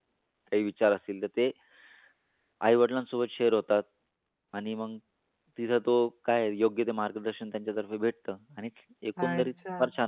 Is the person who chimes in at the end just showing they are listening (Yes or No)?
No